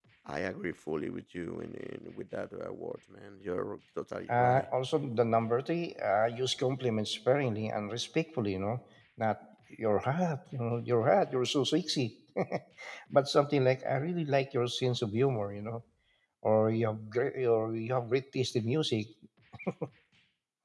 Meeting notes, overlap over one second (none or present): none